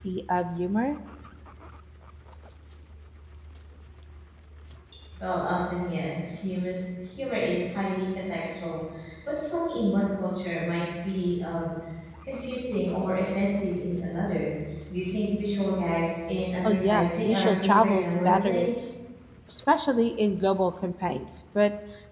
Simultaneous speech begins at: 16.6 s

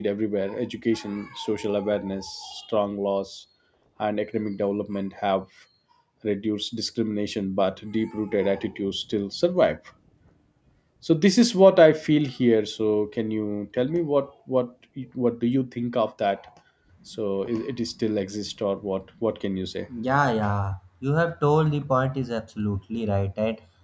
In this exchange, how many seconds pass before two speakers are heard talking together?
none

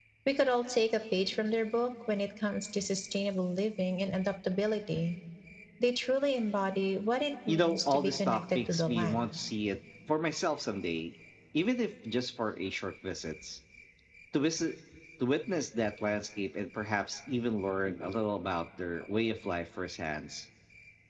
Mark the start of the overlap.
7.5 s

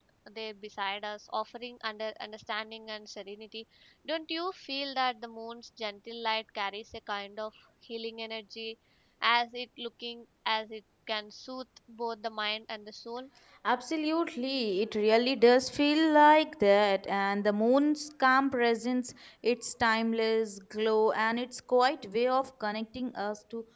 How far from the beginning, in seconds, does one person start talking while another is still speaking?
none

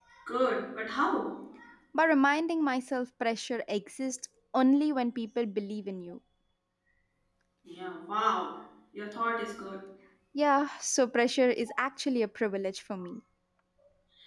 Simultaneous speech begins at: none

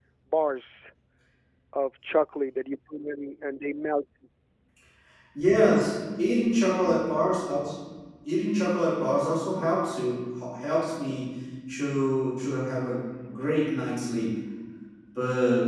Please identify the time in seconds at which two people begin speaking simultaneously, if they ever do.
none

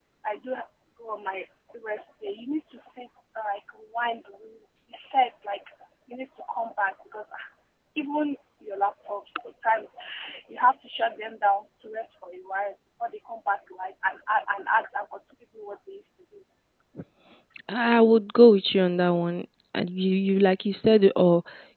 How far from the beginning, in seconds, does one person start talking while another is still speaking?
none

